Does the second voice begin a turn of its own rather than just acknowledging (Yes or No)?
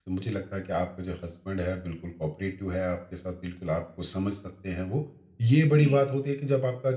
No